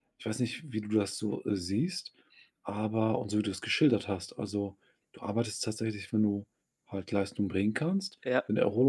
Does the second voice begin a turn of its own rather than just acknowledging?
No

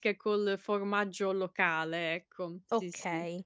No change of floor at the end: No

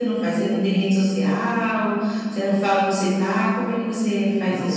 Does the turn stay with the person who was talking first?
No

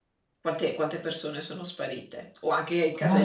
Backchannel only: No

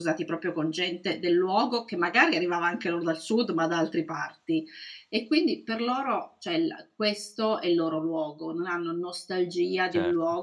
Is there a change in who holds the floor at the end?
No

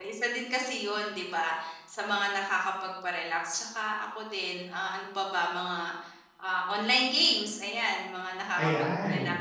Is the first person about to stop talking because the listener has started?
Yes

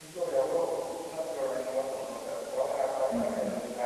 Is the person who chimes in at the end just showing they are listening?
Yes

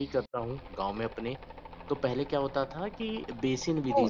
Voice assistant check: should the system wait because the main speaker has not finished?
Yes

